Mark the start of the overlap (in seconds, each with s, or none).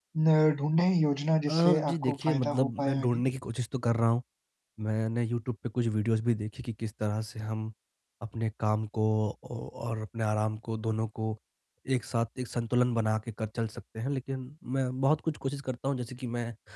1.5 s